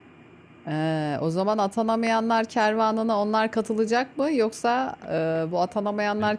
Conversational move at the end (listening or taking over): listening